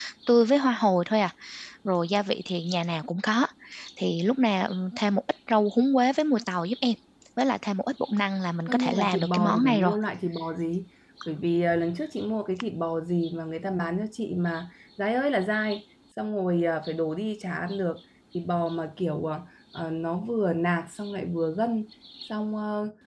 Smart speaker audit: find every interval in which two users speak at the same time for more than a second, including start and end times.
8.7-9.9

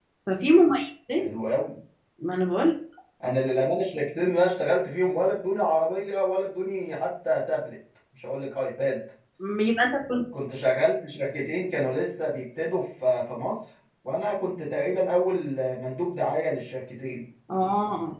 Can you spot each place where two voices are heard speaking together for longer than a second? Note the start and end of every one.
none

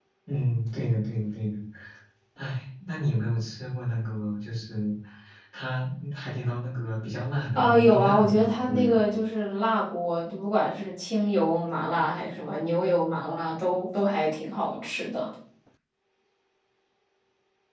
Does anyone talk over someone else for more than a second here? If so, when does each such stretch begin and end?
7.5-8.9

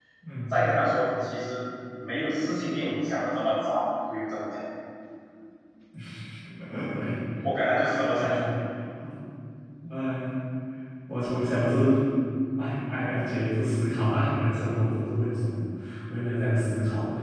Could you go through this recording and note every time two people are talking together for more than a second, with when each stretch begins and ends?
none

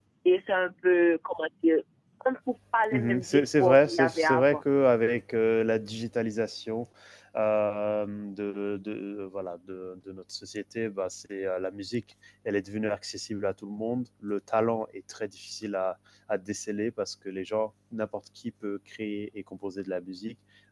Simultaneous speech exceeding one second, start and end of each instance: 2.9-4.6

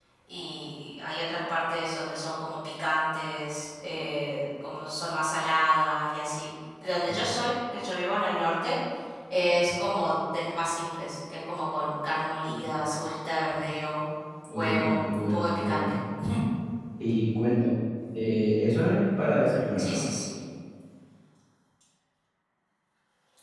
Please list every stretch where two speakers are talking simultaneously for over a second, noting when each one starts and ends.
14.5-16.0

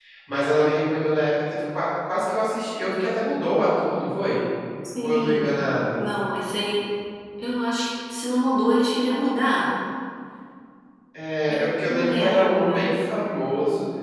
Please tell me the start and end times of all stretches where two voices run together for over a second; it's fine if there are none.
11.5-12.9

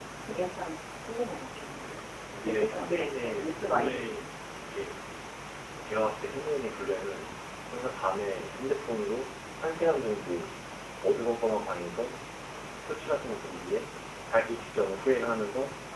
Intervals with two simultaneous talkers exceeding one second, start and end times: 2.6-4.2

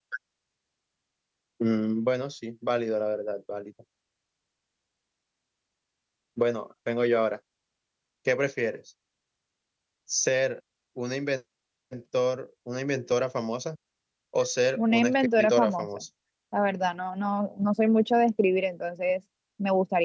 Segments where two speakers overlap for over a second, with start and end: 14.8-16.0

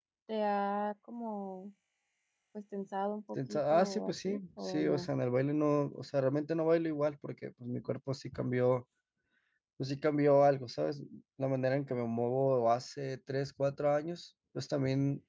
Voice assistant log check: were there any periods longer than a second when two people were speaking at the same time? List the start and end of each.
3.5-5.1

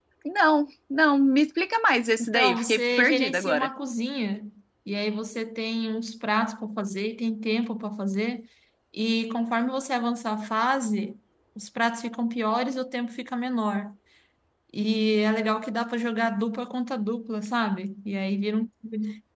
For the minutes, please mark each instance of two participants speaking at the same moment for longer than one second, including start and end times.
2.2-3.7

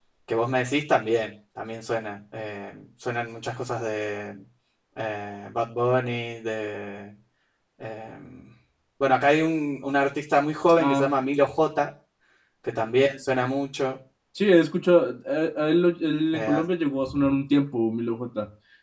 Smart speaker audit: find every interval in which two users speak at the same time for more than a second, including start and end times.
none

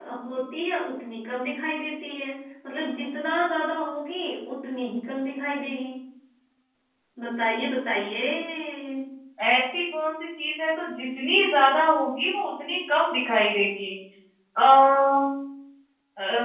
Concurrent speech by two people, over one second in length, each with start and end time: none

